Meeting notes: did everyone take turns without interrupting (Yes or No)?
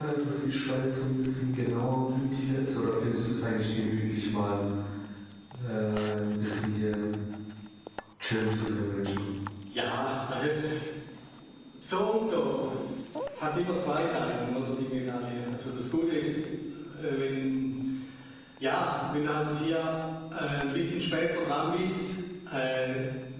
Yes